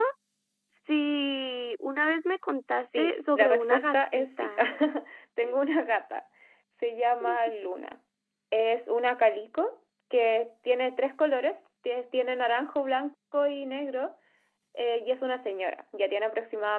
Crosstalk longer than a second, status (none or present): present